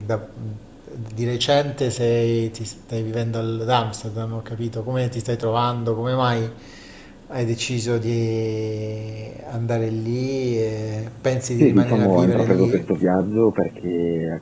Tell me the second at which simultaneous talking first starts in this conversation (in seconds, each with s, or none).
11.6 s